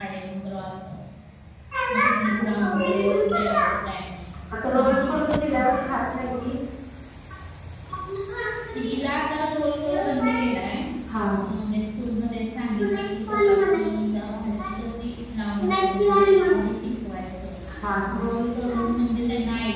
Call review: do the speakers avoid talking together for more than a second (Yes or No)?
No